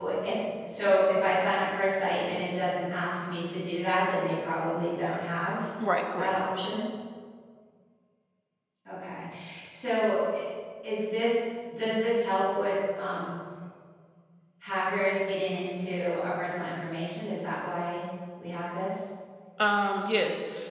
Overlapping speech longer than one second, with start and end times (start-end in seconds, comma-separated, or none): none